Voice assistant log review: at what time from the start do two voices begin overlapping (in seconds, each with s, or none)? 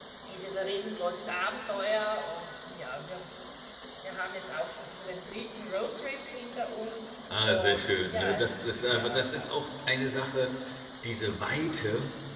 7.3 s